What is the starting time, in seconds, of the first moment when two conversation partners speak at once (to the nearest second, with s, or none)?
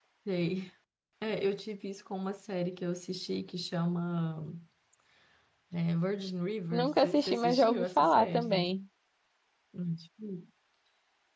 7 s